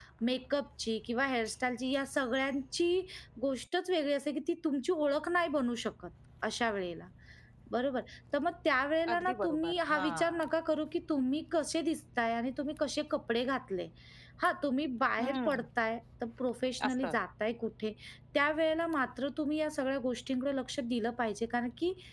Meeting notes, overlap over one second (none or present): present